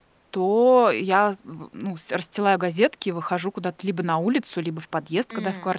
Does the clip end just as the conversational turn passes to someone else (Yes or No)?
No